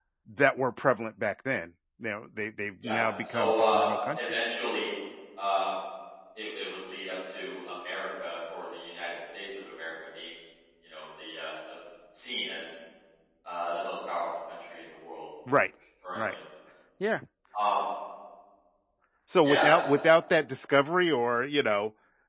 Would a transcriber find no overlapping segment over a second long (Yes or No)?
No